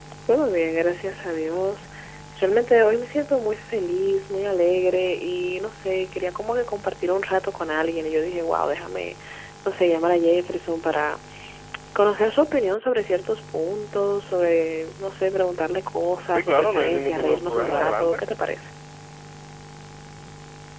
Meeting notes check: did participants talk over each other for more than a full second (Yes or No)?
Yes